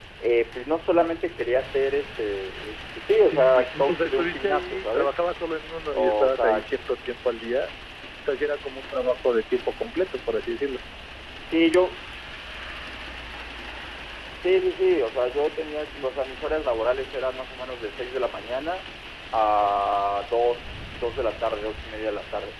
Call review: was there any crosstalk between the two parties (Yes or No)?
Yes